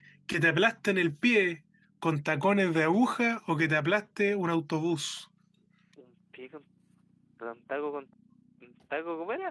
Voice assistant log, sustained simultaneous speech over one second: none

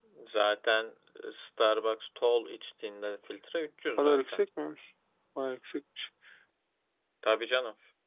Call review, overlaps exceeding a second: none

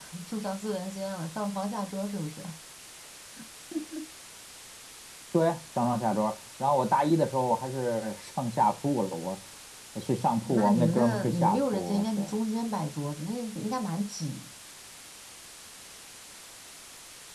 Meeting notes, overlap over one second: present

